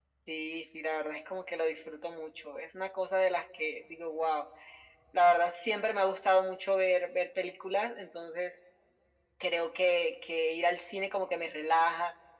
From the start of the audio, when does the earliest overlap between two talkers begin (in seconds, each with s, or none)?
none